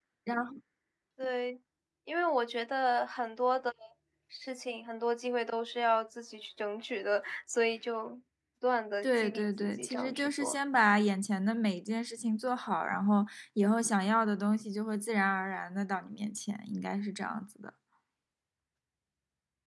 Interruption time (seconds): 9 s

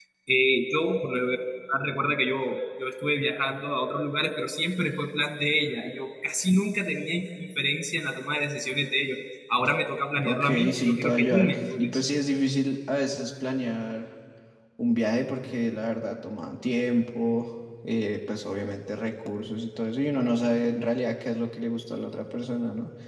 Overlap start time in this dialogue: 10 s

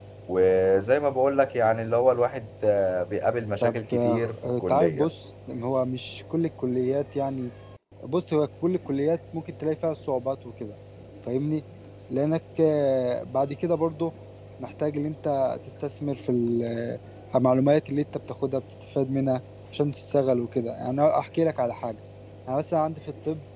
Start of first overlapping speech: 4 s

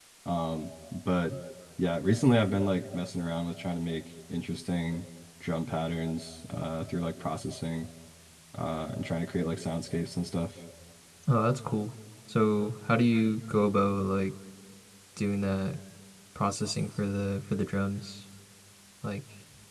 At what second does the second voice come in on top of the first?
none

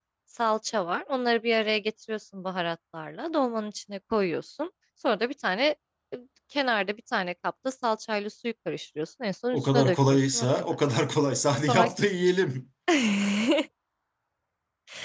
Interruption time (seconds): 10 s

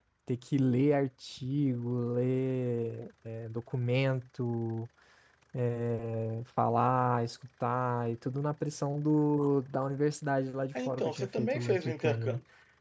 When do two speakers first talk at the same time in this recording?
11 s

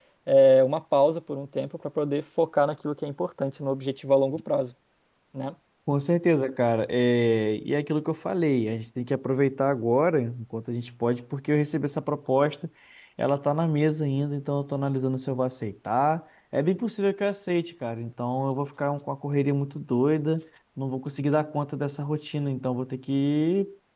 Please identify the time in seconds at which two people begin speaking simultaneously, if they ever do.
none

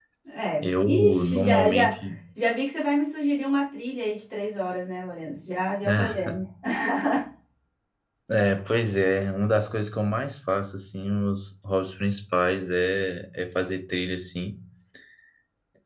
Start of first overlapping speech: 1 s

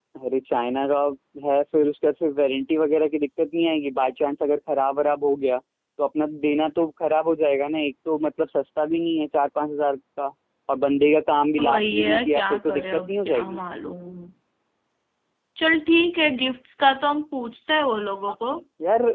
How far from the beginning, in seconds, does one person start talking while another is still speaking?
12 s

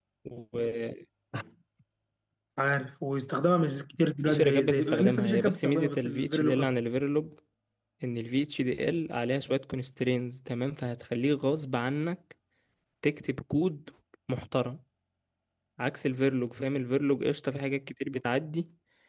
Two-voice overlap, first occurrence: 4 s

